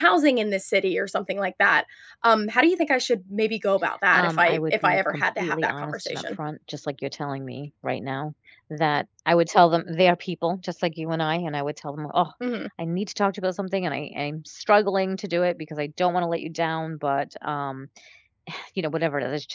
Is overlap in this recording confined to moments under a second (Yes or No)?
No